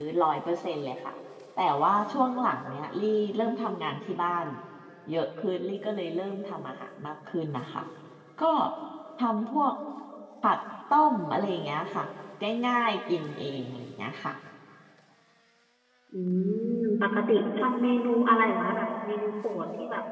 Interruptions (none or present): none